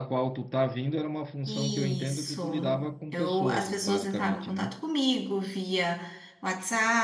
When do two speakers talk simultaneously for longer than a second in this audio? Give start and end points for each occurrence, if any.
1.5-2.8, 3.1-4.7

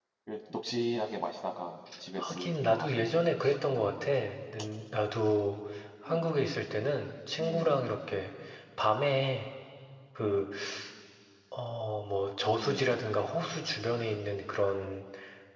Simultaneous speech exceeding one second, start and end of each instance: 2.2-3.6

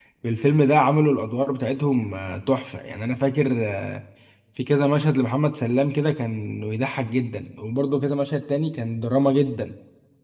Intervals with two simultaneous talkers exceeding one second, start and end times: none

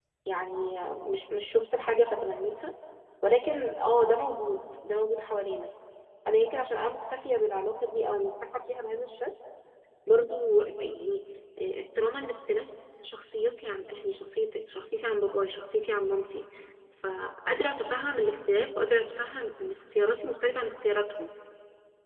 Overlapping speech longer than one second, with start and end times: none

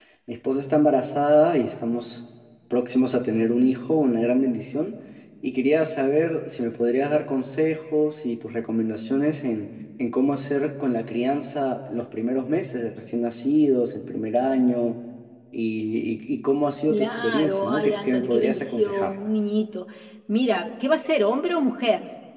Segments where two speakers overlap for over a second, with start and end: 16.9-19.1

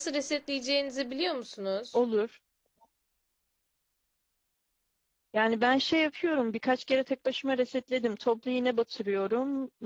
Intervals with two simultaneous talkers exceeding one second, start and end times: none

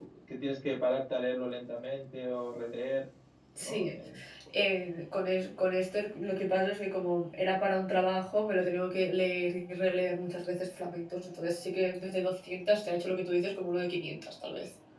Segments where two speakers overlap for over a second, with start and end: none

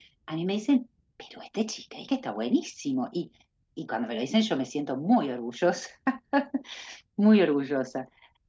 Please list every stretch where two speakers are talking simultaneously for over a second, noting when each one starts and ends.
none

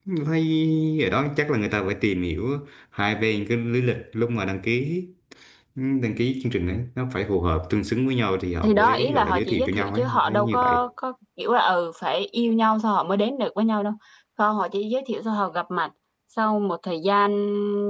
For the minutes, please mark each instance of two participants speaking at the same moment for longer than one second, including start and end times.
8.6-10.8

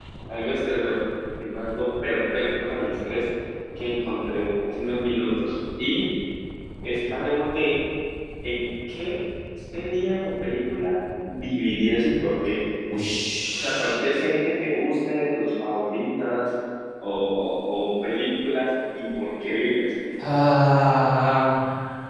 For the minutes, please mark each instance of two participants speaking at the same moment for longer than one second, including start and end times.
none

